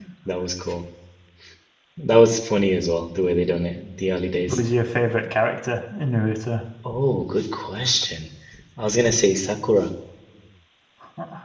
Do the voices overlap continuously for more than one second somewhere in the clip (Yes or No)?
No